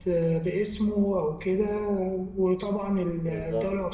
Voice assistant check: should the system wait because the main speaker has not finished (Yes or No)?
Yes